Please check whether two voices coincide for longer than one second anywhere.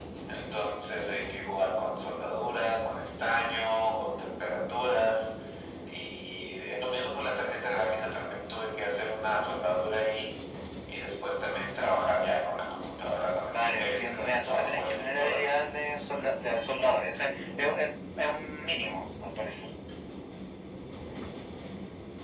Yes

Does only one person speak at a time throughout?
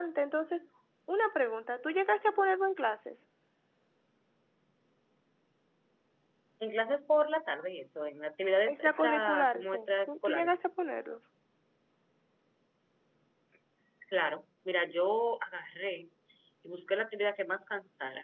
No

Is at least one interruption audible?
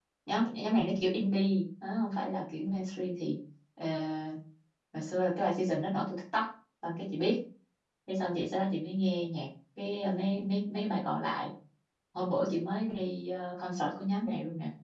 No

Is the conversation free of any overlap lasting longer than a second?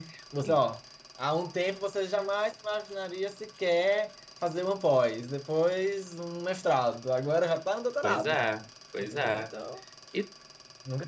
Yes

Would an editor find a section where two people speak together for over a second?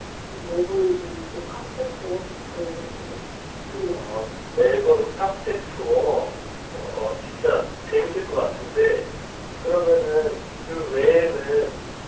No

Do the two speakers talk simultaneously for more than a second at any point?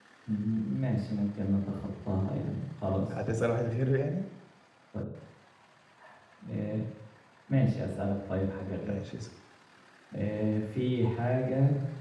No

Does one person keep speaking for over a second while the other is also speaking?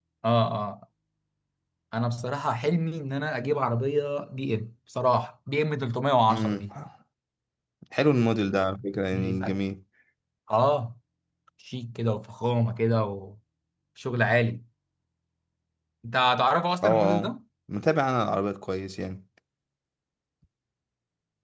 No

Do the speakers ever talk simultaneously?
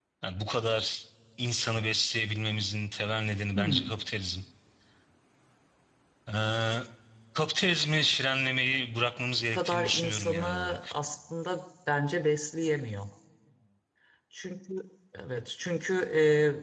Yes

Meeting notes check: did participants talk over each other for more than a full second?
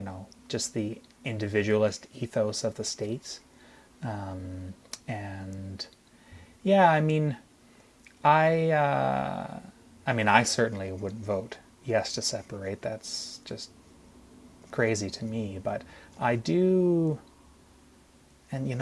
No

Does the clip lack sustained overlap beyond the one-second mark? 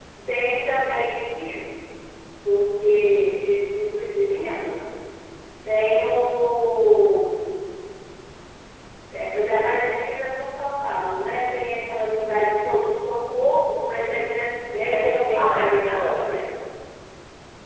No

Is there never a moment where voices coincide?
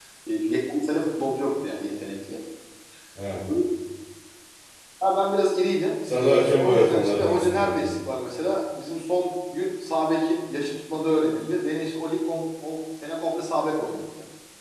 No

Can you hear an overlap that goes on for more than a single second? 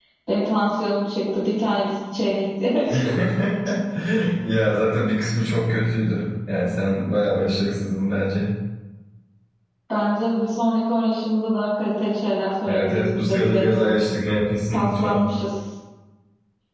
Yes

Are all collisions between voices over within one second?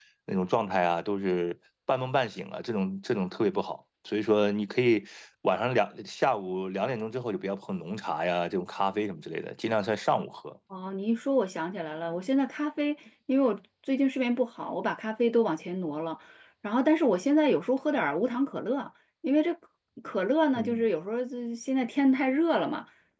Yes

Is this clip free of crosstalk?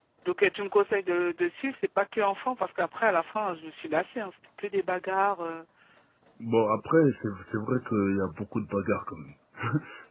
Yes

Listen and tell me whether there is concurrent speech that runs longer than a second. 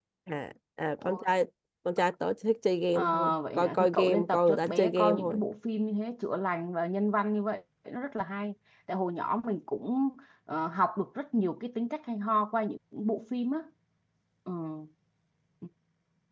Yes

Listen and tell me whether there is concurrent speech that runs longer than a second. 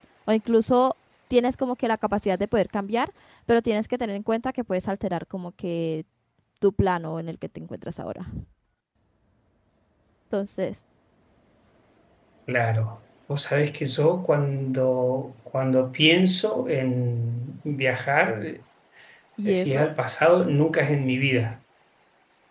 No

